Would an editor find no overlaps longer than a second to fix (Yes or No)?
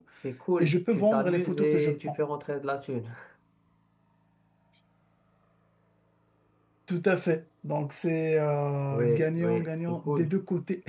No